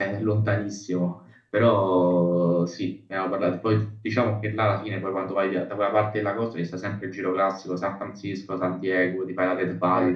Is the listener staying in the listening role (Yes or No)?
Yes